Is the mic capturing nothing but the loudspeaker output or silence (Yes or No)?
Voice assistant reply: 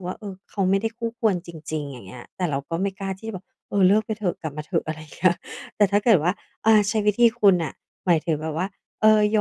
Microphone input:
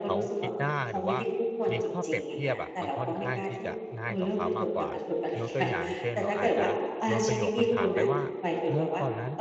No